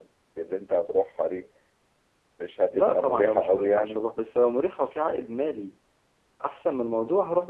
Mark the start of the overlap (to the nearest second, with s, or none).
3 s